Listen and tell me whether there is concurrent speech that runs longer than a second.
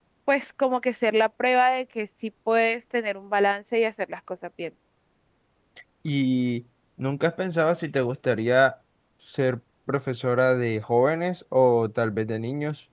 No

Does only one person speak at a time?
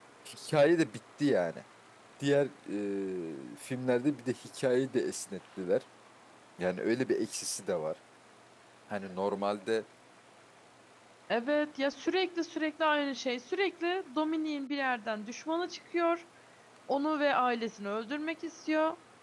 Yes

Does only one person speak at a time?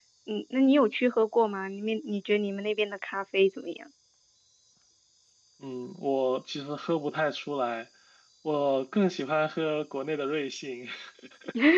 Yes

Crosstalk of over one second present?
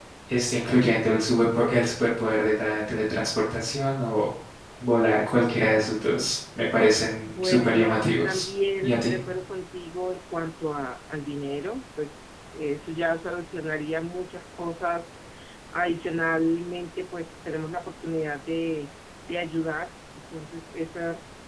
Yes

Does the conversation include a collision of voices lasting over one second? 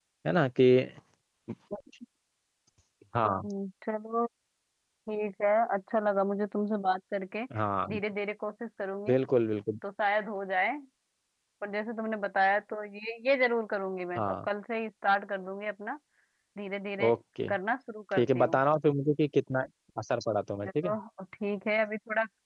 No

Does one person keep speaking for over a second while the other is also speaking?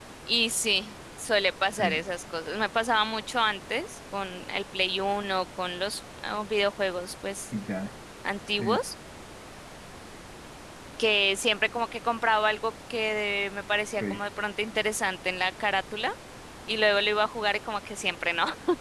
No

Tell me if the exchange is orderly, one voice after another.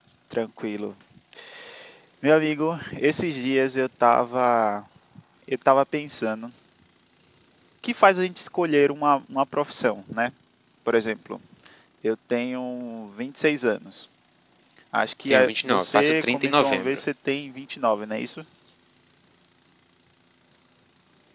No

